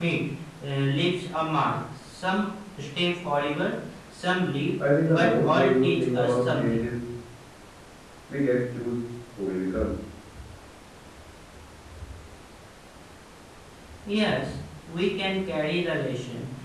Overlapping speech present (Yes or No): Yes